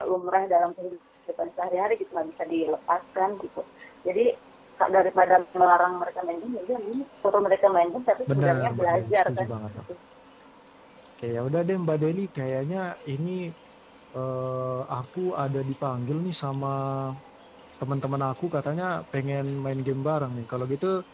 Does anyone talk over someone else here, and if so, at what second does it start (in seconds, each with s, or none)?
8.3 s